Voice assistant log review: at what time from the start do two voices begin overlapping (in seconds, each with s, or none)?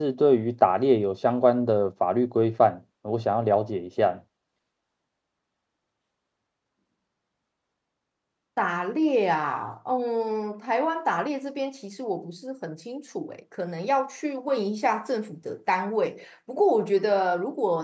none